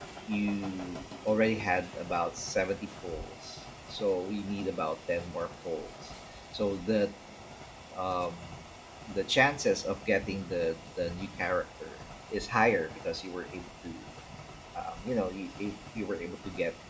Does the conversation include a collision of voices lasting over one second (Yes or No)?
No